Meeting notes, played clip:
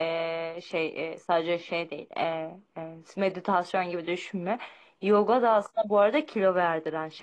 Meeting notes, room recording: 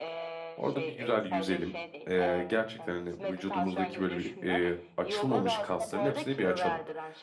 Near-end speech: present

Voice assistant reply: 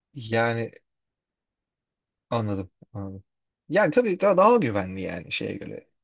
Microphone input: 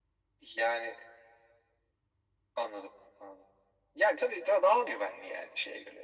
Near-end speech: none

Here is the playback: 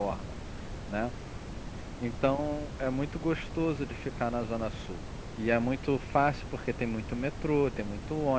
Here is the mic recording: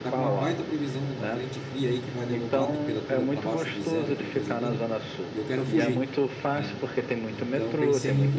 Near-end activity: present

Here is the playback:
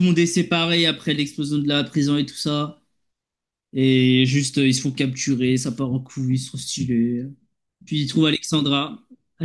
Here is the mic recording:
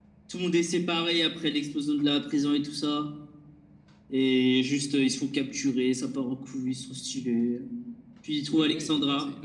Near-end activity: present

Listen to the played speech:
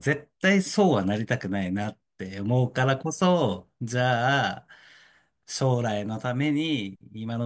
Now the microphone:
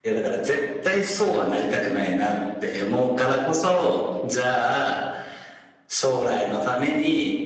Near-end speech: none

